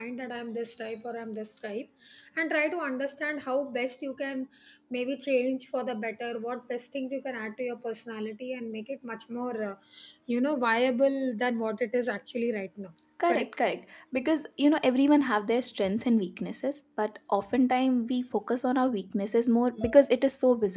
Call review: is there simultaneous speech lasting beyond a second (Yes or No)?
No